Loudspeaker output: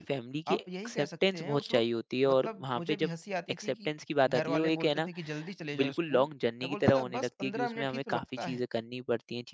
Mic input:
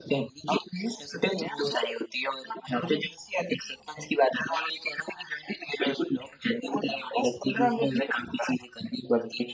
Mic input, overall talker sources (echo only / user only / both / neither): echo only